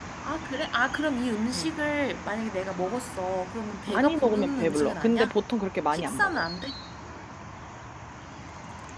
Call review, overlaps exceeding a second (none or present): present